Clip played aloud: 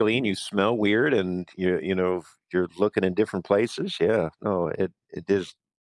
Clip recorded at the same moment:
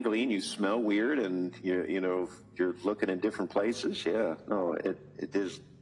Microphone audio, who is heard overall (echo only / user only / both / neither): echo only